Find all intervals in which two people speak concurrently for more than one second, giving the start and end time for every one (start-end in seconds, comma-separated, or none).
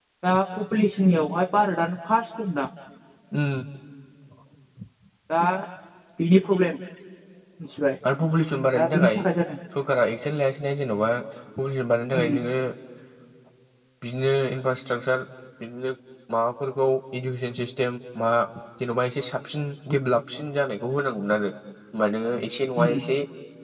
none